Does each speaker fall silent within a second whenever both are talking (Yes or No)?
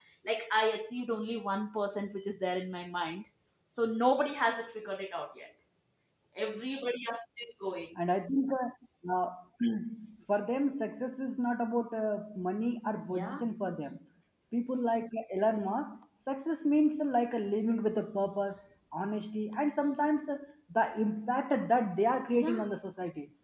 Yes